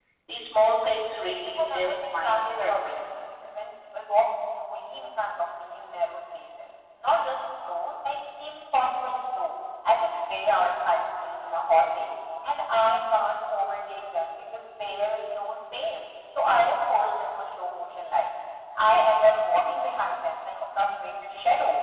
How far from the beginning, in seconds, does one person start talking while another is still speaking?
2 s

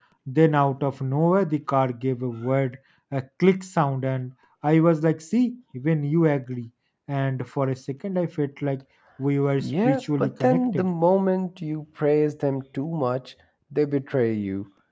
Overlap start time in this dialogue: 10 s

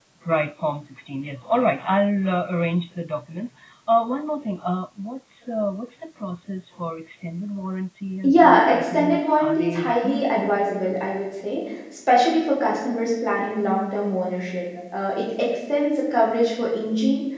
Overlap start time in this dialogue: 8 s

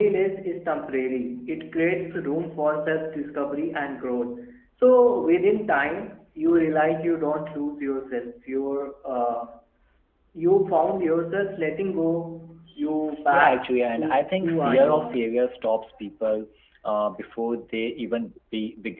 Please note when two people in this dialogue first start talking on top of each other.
13 s

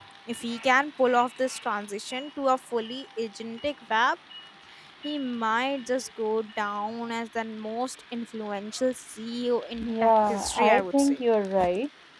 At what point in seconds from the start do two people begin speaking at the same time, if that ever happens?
10 s

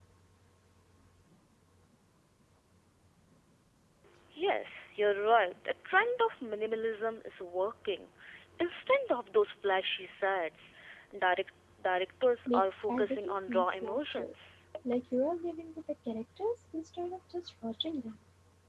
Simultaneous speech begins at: 12 s

